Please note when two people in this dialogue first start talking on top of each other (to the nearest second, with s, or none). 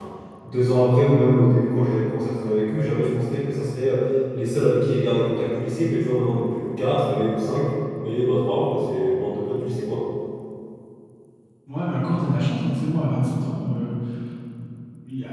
none